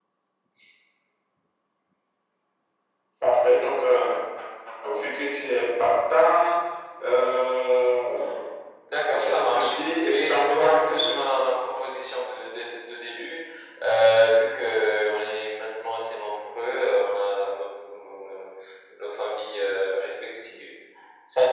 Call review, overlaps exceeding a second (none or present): present